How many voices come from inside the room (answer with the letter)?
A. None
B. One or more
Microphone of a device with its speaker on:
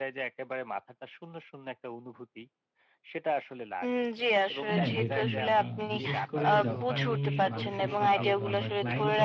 B